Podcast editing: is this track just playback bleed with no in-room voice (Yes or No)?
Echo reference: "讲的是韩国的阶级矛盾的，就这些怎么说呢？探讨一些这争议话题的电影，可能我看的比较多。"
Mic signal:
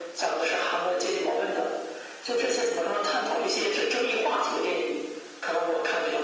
Yes